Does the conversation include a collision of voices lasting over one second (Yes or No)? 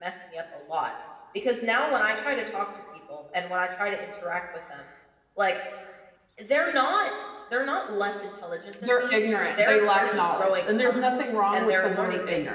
Yes